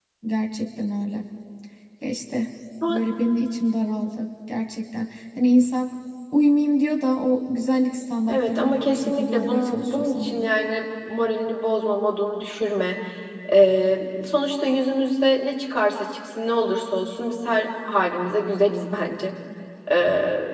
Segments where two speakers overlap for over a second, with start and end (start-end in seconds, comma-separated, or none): 8.3-10.5